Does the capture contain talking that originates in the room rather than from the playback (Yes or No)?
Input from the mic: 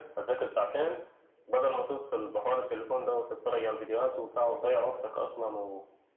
No